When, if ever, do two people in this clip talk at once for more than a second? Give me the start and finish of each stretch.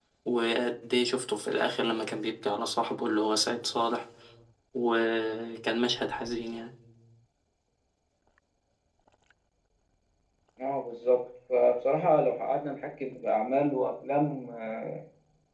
none

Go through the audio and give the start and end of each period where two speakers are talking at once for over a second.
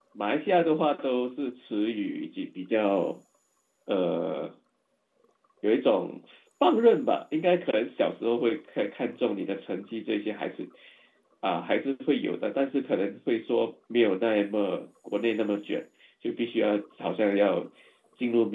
none

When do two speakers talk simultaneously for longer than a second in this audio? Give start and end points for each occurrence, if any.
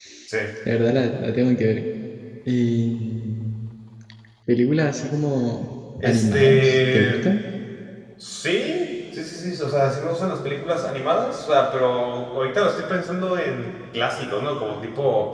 6.0-7.3

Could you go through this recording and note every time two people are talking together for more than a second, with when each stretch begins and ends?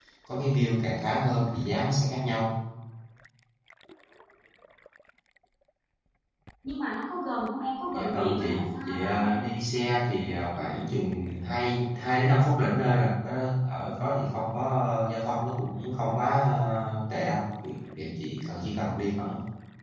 7.9-9.4

